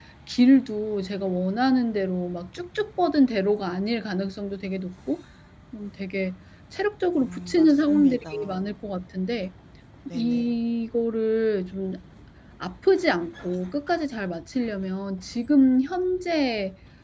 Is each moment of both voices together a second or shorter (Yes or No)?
No